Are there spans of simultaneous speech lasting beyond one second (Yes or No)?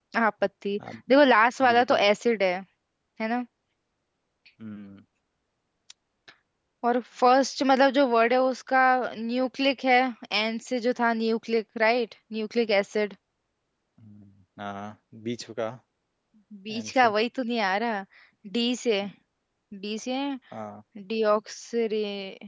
No